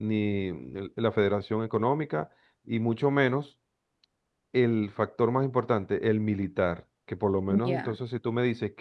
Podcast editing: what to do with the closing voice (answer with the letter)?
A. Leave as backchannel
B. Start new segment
A